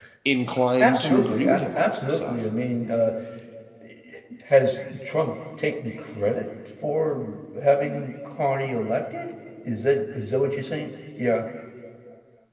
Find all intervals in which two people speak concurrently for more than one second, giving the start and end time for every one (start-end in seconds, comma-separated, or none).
0.8-2.4